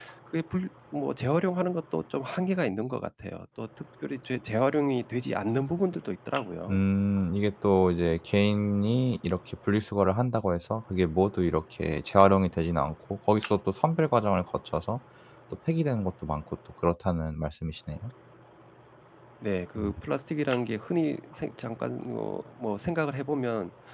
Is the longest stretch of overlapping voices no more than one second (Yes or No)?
Yes